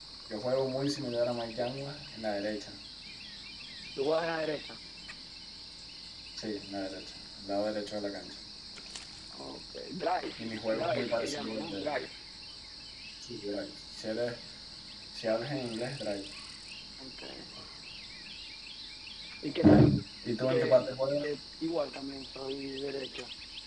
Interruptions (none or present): present